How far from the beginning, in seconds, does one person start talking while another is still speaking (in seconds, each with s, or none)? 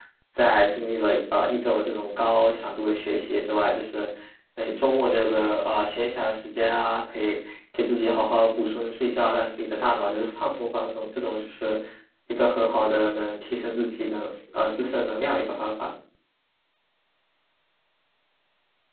none